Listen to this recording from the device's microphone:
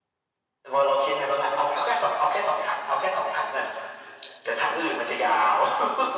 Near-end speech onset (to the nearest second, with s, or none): none